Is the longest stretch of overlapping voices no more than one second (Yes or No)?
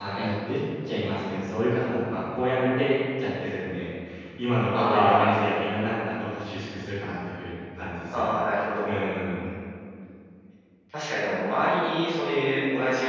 Yes